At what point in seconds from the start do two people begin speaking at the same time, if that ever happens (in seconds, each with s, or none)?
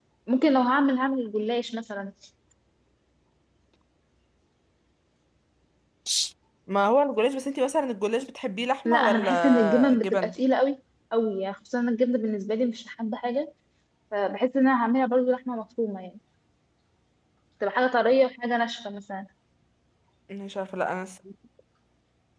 8.8 s